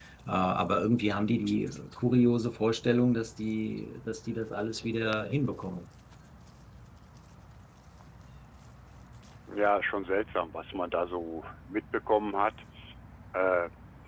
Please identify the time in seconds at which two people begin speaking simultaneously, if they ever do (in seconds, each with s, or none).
none